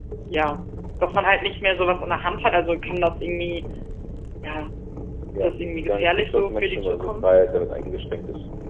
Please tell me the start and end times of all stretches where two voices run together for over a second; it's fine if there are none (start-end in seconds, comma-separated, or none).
5.3-7.3